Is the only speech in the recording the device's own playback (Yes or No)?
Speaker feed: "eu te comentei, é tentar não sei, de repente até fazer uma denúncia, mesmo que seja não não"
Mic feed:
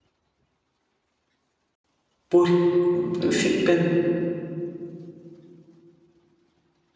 No